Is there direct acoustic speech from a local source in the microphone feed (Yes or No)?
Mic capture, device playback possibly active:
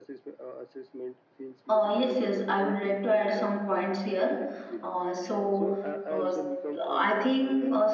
Yes